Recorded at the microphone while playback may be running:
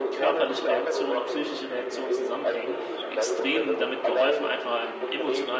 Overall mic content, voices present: both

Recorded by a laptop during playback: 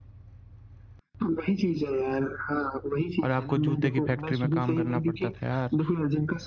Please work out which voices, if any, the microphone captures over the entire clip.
both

